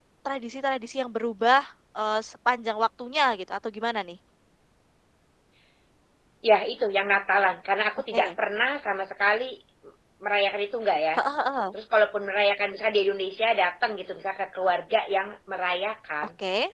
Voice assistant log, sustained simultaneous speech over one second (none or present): none